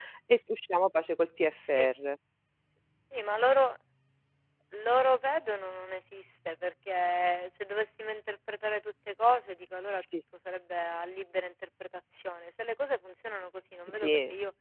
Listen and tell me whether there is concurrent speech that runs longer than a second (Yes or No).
No